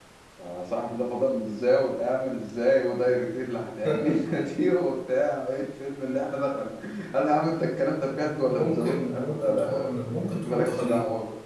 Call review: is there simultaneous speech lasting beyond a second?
Yes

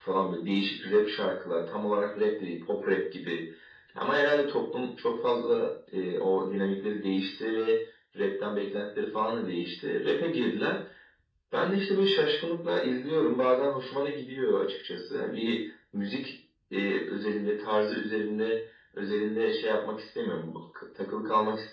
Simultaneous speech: No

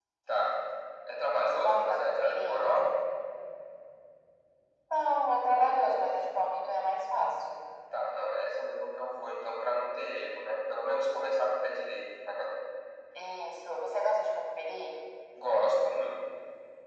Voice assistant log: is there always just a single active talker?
No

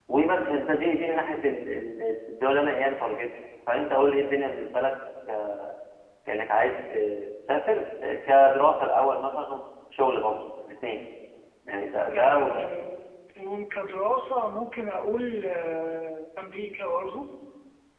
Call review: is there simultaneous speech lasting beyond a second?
No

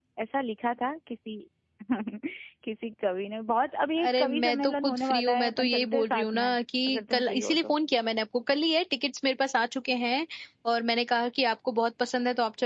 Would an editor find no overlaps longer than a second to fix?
No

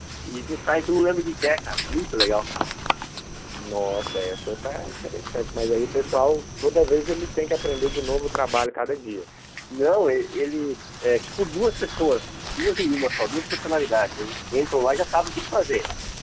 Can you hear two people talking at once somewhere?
No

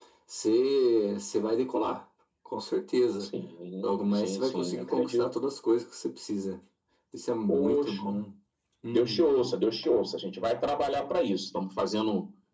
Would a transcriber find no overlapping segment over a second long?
No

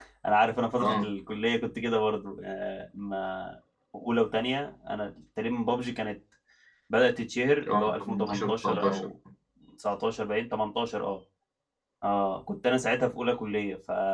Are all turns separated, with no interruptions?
No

